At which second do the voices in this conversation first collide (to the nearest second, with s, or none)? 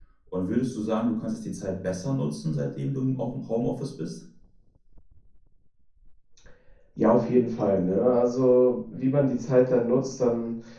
none